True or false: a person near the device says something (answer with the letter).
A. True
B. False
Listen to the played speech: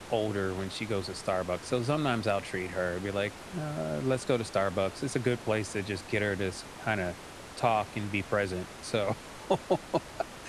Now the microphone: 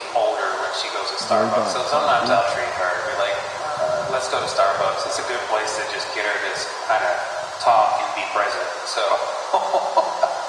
A